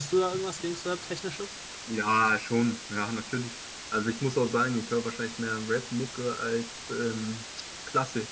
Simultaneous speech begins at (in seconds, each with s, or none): none